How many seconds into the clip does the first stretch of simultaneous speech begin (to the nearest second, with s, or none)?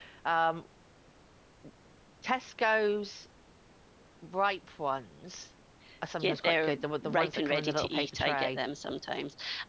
6 s